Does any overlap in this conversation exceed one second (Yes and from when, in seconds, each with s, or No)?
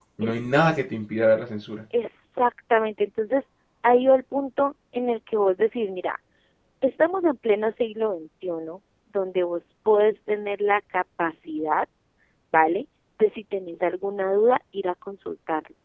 No